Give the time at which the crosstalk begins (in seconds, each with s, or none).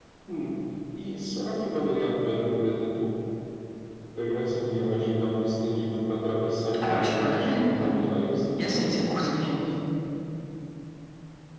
6.8 s